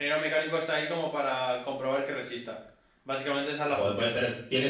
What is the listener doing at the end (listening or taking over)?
taking over